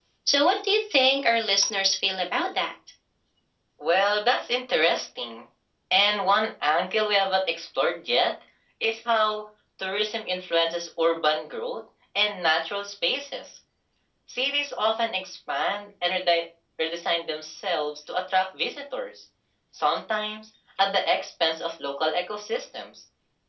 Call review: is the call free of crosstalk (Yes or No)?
Yes